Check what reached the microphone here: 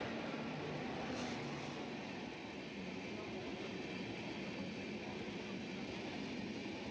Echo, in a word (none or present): none